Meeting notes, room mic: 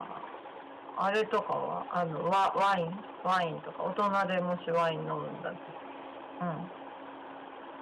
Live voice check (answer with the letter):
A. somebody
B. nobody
B